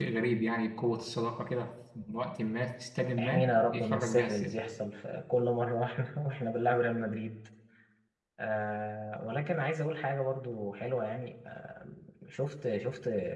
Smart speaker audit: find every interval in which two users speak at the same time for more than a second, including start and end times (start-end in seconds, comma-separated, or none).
3.2-4.5